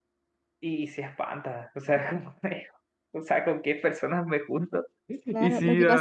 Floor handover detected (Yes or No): Yes